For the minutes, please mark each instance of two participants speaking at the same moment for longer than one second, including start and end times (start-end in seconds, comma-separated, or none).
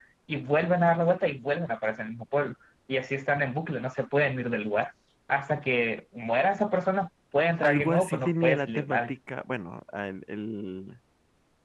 7.6-9.1